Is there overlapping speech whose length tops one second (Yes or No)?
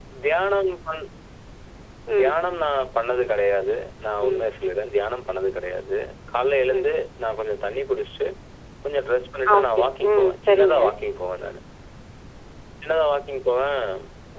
Yes